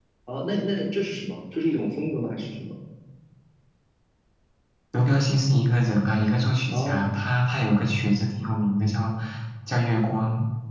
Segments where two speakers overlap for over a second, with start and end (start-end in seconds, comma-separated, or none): none